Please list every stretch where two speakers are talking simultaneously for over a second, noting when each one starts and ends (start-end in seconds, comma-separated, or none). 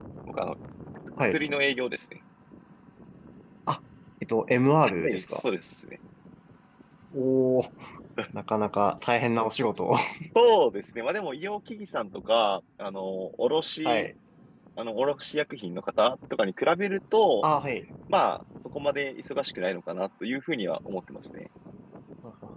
none